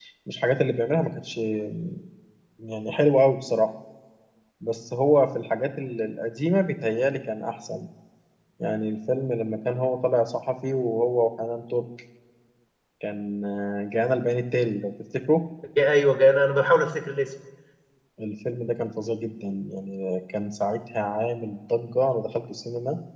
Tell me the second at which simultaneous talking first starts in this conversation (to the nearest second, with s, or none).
none